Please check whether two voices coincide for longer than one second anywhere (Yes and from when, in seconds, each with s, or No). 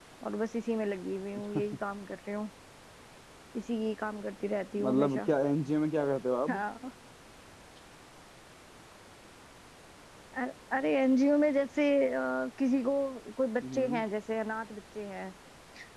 No